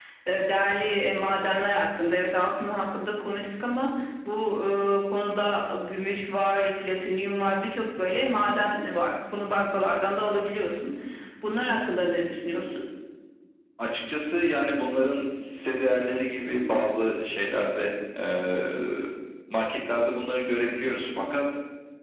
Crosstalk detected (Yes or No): No